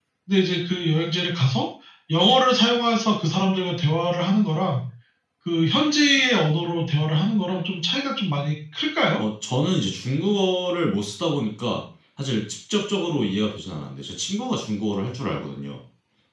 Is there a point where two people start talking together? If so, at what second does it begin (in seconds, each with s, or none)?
none